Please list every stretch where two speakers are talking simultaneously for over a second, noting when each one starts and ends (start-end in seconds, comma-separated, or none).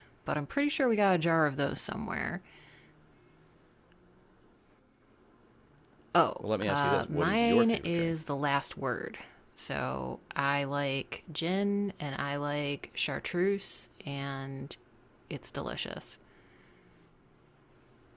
6.4-8.1